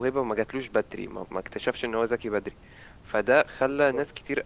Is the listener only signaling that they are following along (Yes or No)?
Yes